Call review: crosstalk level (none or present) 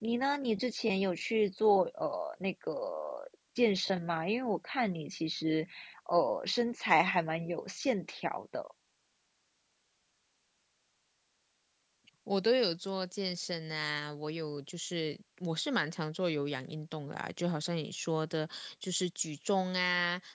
none